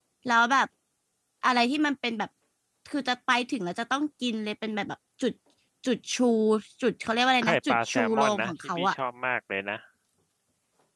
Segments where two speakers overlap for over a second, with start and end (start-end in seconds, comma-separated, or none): 7.4-8.9